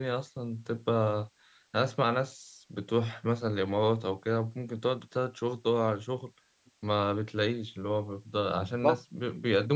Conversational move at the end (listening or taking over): listening